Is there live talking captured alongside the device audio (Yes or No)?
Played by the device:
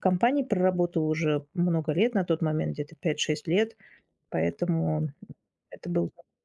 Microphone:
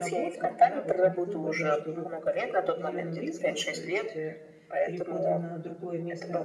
Yes